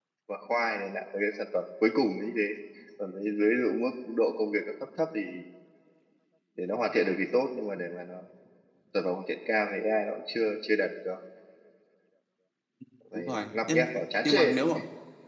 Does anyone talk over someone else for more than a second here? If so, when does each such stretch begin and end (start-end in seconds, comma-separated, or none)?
13.2-14.6